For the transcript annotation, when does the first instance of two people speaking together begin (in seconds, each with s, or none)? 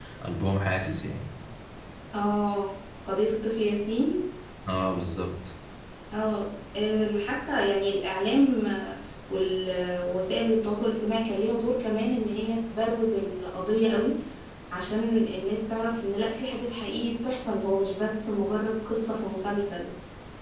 none